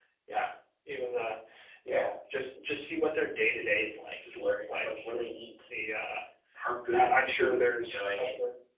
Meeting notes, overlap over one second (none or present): present